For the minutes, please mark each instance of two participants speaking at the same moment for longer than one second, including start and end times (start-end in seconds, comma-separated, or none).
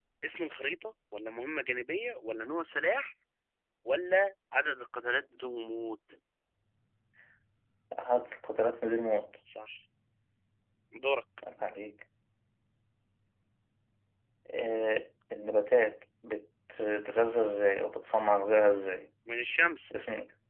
none